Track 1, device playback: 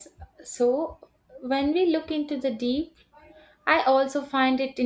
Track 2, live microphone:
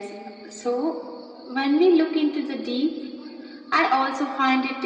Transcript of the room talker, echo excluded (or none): none